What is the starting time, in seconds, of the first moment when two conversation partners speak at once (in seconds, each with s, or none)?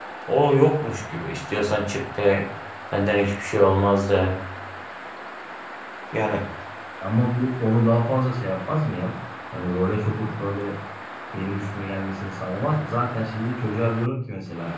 none